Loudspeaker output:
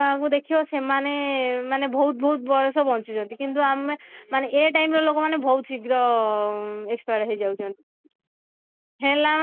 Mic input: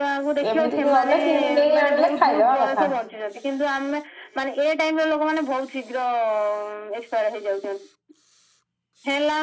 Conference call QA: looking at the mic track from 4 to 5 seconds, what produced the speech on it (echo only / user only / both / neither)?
echo only